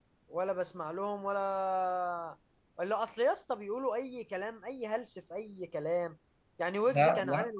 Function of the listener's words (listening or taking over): listening